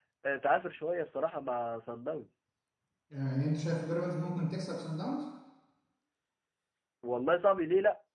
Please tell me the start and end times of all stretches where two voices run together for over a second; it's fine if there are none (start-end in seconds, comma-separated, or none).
none